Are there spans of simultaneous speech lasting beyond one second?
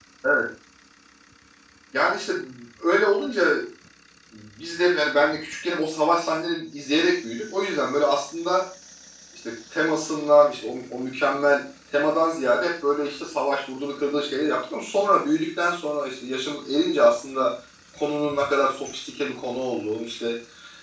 No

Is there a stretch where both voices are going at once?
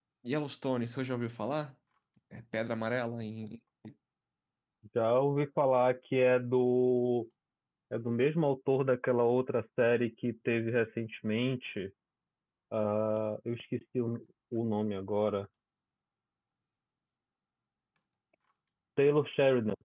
No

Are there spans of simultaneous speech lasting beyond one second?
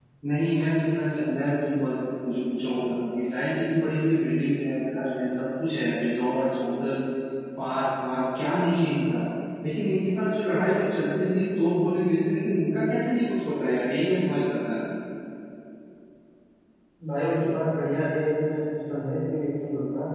No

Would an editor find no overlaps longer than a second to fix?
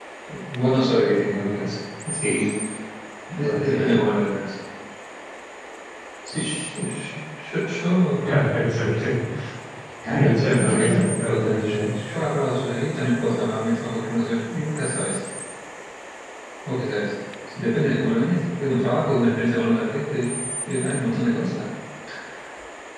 No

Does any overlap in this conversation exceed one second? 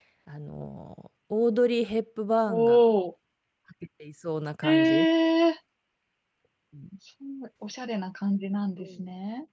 No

